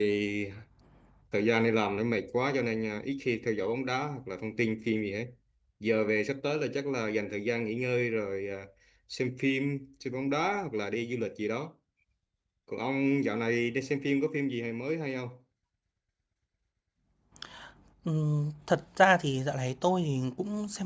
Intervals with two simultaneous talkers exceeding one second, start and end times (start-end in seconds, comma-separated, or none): none